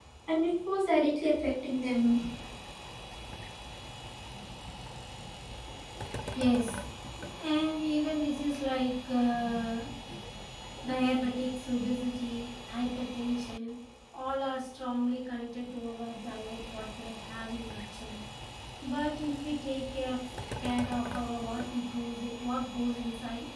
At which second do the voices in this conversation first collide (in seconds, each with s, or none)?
none